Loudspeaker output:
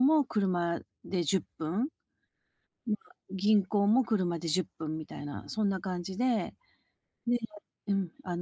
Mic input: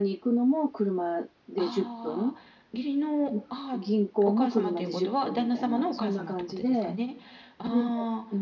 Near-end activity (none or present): present